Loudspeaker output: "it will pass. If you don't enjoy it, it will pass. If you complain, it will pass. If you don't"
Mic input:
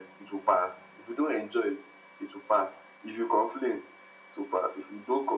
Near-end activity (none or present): none